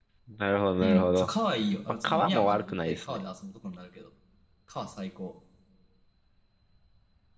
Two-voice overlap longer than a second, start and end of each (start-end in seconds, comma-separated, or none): 2.0-3.2